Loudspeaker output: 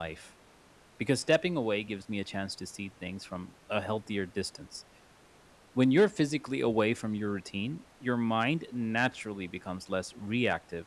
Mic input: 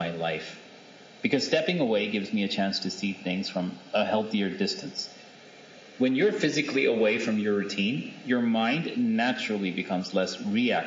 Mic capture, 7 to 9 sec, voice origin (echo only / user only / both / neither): echo only